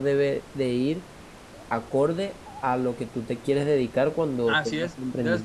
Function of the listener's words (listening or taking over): taking over